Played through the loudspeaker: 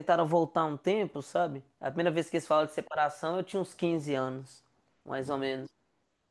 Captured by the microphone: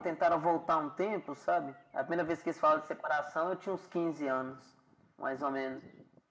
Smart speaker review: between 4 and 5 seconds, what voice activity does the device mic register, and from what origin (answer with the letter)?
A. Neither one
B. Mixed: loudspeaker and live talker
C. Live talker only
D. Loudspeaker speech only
D